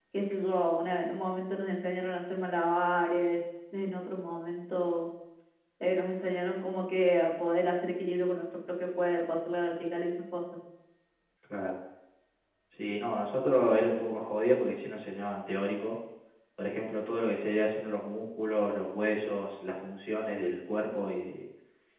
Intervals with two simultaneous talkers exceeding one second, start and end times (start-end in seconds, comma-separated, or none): none